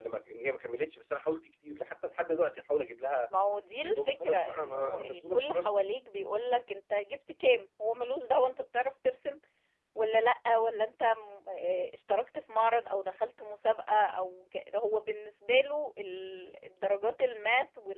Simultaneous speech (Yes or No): Yes